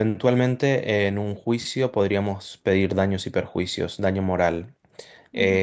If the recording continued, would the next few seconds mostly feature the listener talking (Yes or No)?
Yes